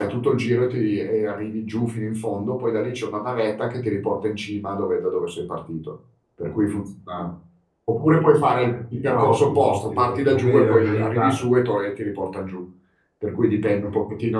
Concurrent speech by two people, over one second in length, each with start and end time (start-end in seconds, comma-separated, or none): 9.1-11.4